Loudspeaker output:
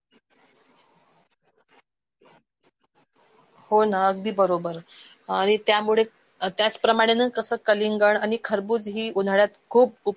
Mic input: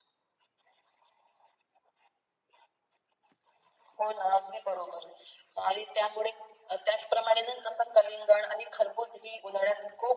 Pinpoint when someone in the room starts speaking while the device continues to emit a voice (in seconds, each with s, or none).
none